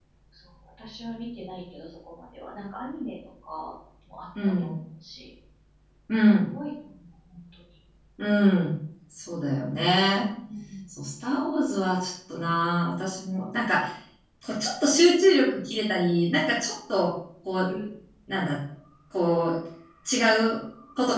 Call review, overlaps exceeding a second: none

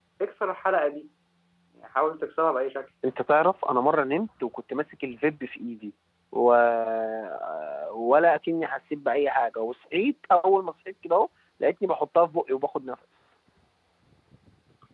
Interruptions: none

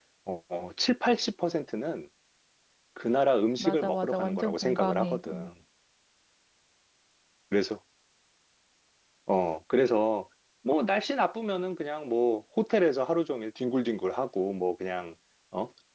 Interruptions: present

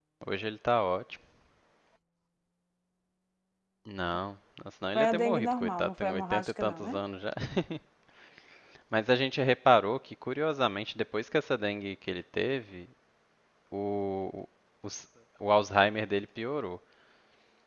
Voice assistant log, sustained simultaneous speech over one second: present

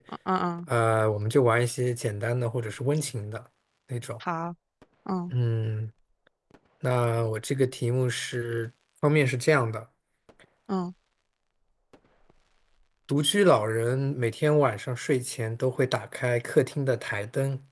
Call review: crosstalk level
none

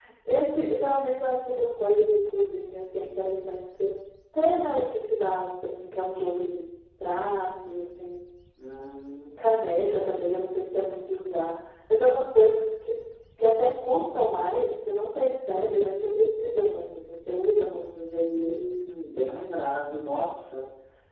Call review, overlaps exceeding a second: none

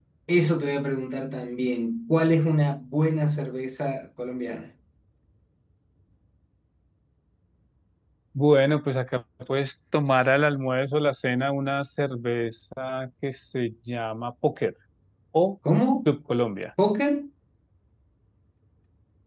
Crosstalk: none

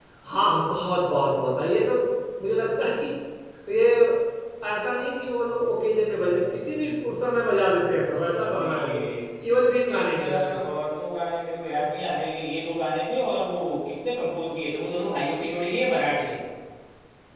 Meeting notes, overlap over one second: present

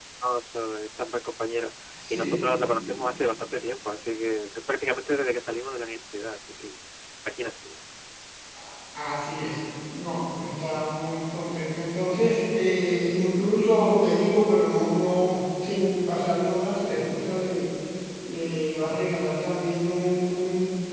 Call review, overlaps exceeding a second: none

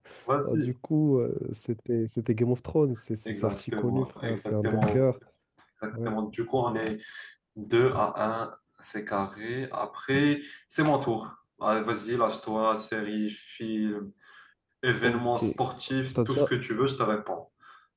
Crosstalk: present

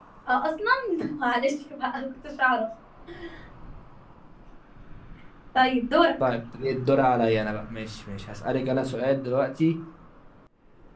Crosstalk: none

